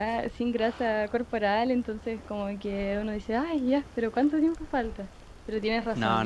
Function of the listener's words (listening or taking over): listening